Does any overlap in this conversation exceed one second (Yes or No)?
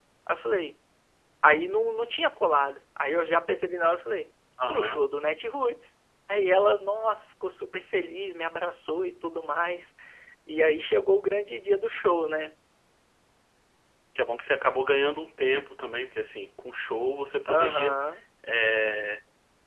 No